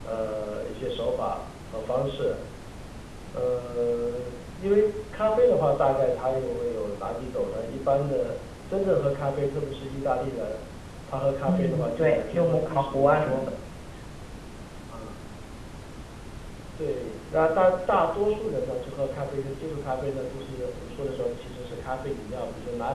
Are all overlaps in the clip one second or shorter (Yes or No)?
No